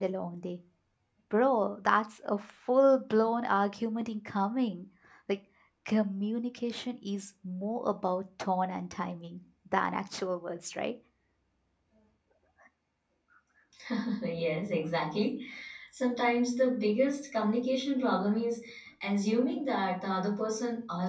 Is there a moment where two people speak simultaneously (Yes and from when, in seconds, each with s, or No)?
No